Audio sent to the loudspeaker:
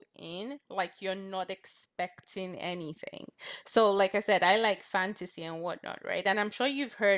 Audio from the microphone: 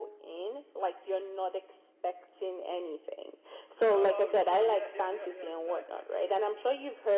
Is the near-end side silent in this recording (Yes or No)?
No